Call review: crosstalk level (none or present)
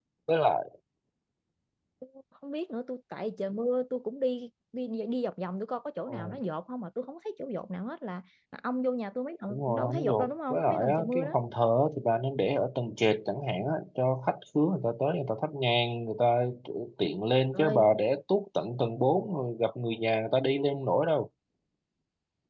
present